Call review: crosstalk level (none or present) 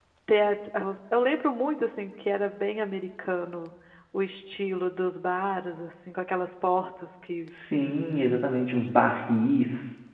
none